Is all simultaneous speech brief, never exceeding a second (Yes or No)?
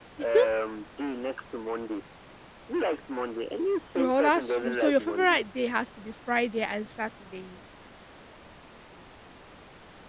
No